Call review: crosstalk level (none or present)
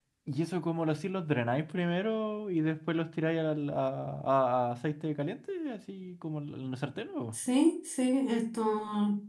none